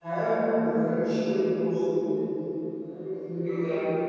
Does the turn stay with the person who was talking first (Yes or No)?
Yes